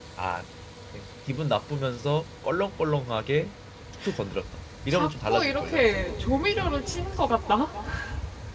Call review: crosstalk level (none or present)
present